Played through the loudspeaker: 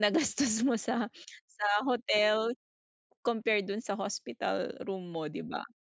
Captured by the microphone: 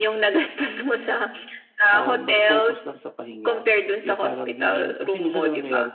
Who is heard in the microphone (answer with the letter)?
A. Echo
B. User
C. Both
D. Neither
C